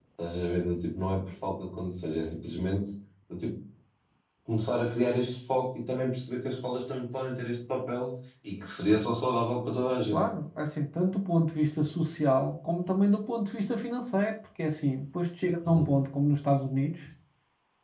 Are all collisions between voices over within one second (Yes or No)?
Yes